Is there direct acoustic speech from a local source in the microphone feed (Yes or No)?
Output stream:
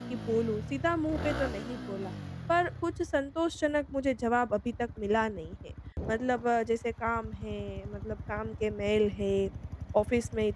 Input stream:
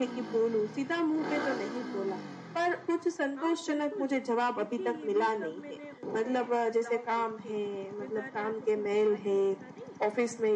Yes